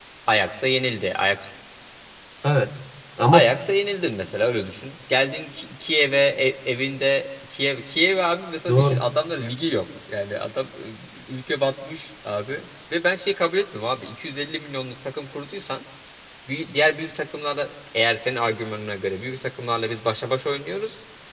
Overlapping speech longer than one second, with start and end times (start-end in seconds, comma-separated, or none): none